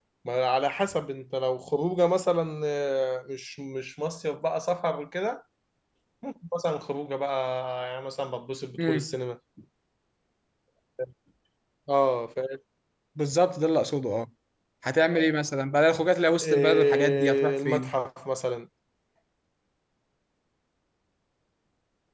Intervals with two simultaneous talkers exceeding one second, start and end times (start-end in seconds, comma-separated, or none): 16.4-17.9